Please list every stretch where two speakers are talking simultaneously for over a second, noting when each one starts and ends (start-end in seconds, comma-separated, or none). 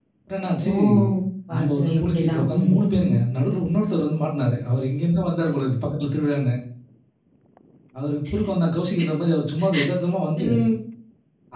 1.6-3.0